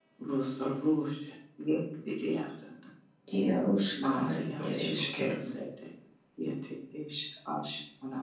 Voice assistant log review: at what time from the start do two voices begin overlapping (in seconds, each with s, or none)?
4.0 s